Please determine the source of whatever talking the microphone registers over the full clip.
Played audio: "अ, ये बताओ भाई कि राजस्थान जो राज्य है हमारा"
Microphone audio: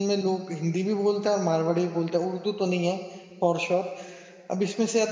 user only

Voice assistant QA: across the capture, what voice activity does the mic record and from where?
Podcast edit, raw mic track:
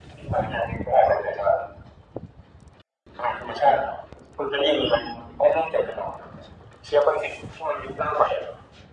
echo only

